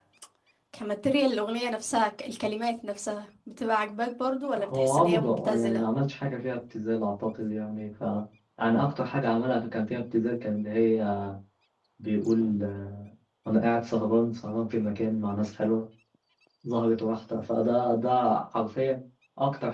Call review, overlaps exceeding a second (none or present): present